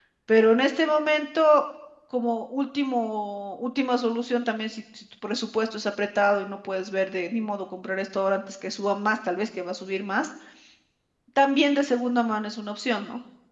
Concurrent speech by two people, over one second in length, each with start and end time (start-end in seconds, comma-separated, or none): none